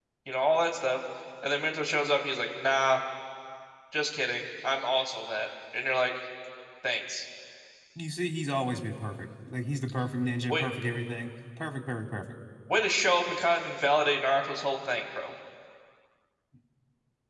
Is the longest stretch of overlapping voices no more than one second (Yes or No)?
Yes